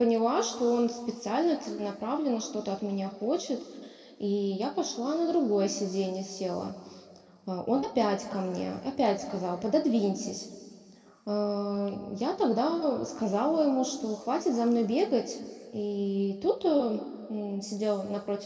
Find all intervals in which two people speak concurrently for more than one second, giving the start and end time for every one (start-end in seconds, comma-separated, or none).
none